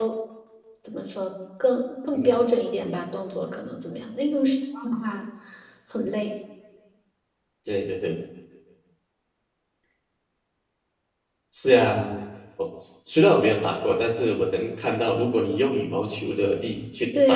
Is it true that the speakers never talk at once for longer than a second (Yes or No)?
Yes